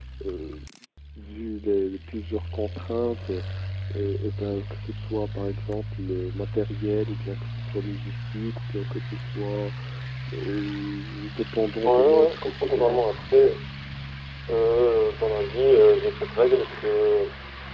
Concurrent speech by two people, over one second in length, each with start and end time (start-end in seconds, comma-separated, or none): 11.8-13.0